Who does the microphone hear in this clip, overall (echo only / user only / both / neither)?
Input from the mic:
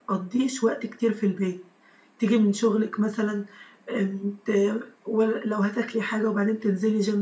user only